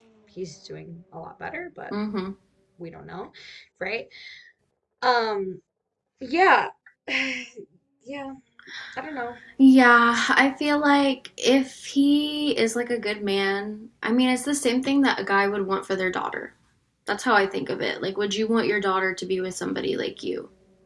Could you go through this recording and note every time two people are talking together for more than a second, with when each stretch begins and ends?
none

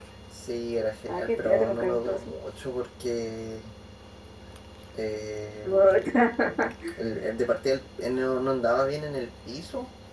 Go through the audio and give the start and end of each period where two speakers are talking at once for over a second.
1.1-2.3

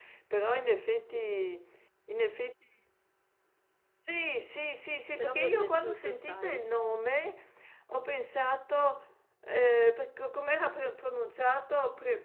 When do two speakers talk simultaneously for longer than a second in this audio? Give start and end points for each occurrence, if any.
5.2-6.6

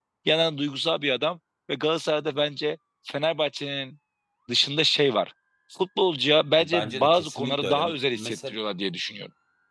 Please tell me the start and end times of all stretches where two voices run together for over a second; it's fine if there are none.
6.6-8.6

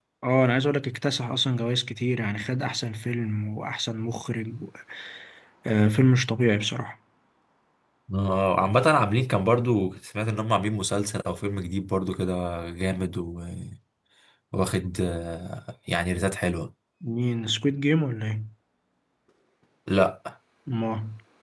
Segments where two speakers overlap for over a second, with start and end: none

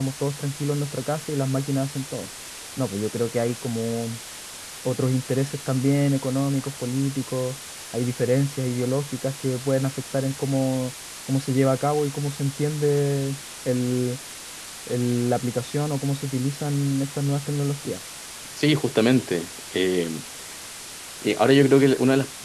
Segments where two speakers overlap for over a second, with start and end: none

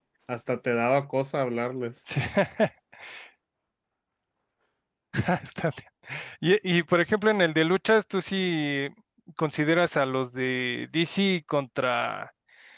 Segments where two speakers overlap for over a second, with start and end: none

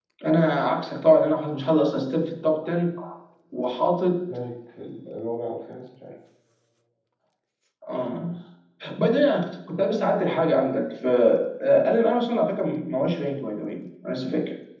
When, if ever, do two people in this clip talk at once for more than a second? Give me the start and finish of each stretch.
none

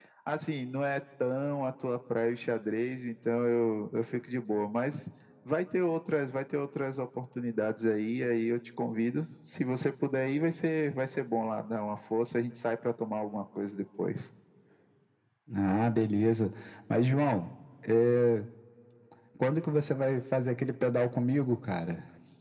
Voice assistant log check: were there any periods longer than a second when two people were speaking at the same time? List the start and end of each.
none

